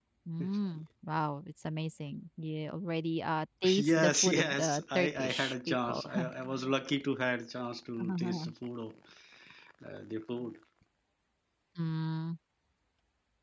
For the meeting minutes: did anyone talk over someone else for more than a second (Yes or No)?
Yes